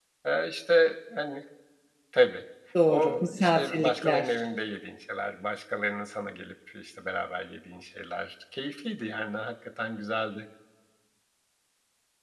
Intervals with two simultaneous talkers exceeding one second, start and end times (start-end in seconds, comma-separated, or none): 2.9-4.5